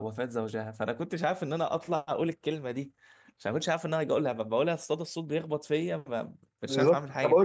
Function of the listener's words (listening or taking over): taking over